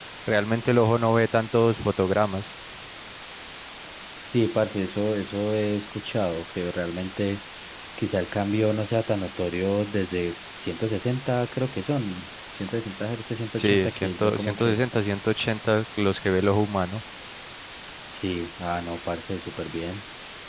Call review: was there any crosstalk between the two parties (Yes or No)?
Yes